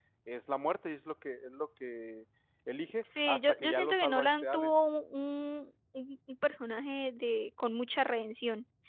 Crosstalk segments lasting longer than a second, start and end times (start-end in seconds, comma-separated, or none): 3.3-4.7